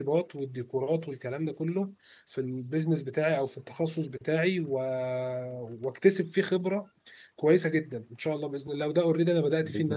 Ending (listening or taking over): listening